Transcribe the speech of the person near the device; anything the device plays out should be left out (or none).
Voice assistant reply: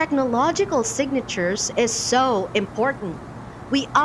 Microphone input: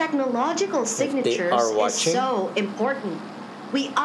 if they are watching